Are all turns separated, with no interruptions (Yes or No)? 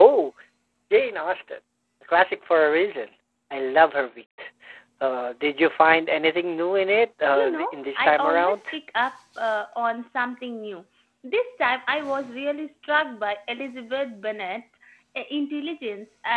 No